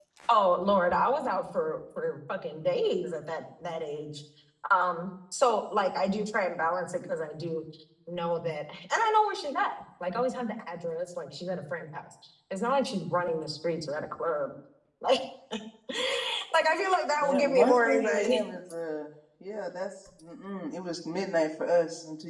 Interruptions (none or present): present